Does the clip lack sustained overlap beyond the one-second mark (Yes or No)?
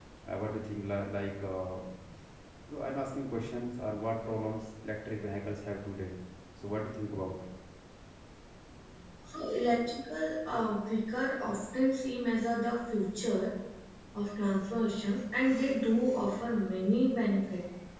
Yes